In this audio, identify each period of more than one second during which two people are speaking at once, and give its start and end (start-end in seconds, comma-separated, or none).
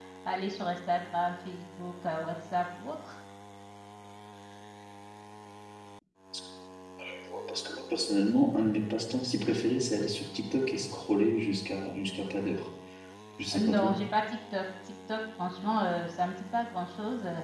none